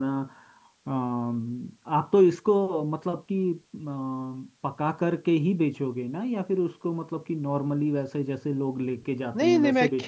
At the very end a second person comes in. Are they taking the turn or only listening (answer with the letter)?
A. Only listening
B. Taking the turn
B